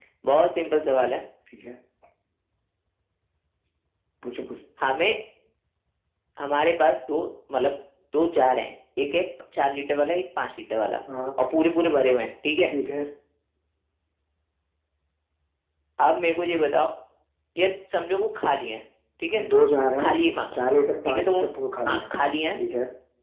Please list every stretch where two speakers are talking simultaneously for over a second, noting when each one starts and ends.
none

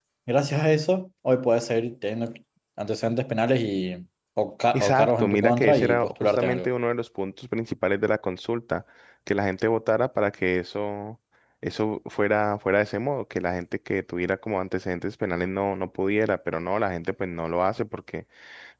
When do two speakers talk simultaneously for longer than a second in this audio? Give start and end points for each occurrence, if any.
4.7-6.7

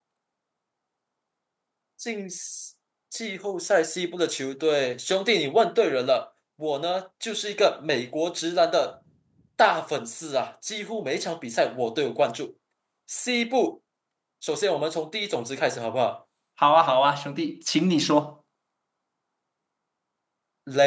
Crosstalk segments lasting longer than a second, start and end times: none

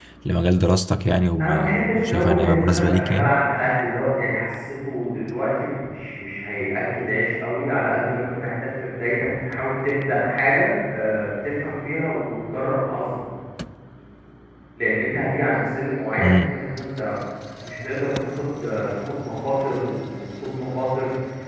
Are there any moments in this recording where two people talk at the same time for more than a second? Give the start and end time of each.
1.4-3.4

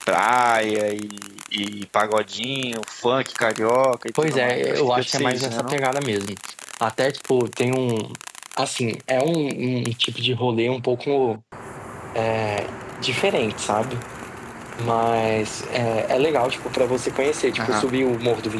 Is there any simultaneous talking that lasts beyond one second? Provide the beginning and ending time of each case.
4.2-5.8

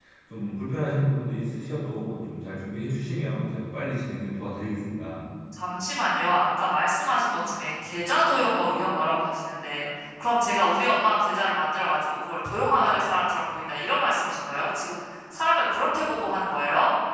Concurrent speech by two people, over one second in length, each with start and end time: none

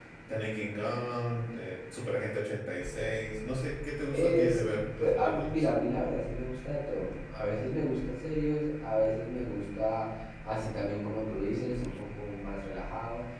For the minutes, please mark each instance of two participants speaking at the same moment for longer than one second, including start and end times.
4.1-5.7

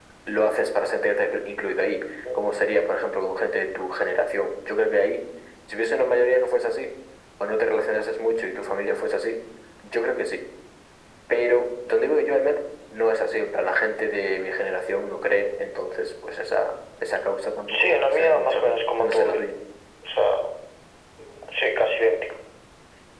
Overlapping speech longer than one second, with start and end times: 17.7-19.5

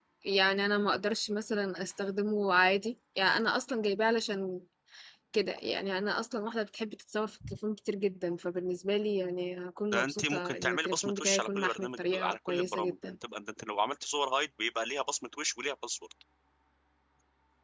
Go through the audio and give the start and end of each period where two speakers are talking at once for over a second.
9.9-12.9

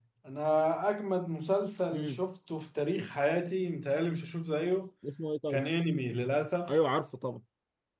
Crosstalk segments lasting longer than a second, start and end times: none

